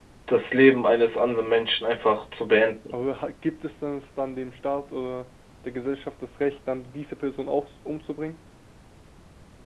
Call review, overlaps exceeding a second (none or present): none